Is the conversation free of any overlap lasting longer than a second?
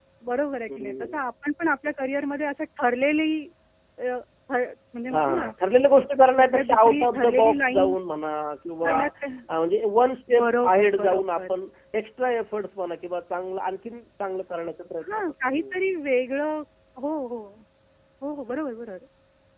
No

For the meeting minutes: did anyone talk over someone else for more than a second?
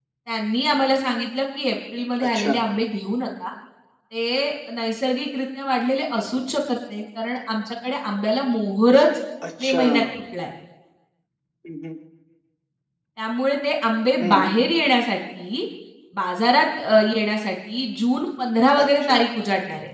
No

